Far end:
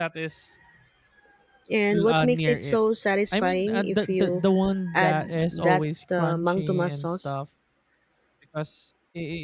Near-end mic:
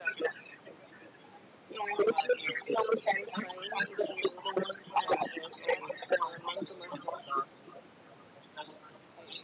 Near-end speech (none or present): none